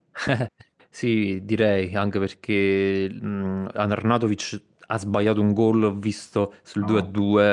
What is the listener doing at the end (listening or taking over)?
listening